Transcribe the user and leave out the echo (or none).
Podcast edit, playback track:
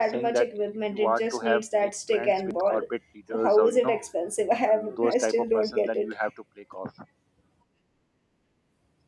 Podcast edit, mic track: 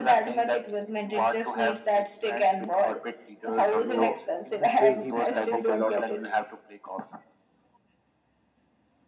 so in this way he uh, make a lot of friends